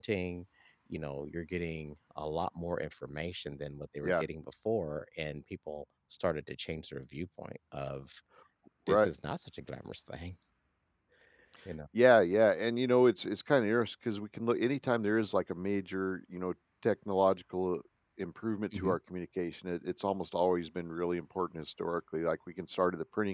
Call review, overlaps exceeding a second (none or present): none